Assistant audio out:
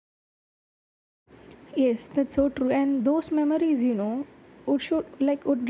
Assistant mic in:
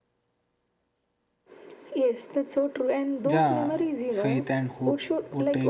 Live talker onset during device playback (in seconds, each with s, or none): 3.2 s